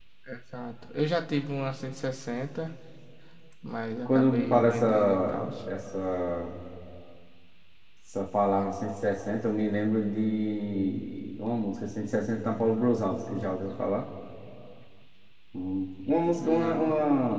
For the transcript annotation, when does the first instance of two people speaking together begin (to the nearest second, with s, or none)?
4 s